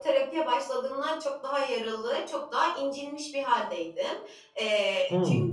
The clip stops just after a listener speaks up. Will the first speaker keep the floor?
Yes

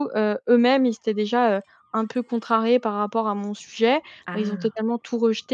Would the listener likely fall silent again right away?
Yes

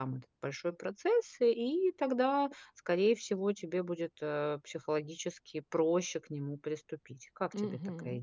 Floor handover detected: Yes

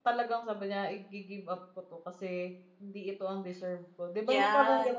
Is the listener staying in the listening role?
No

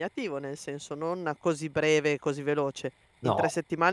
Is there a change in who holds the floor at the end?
No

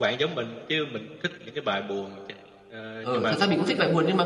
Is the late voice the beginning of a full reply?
Yes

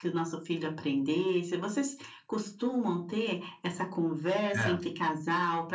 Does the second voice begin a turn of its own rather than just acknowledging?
No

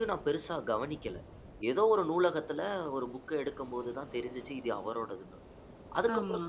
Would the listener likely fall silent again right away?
Yes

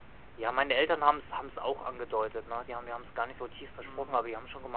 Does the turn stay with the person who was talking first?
Yes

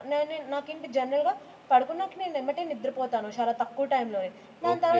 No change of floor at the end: No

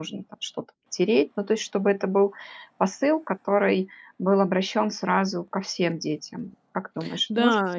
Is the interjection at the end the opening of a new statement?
Yes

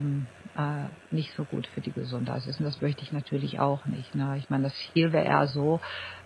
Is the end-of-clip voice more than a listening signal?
No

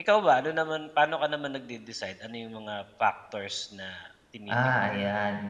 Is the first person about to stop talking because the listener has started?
Yes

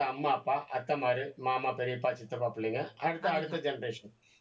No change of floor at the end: Yes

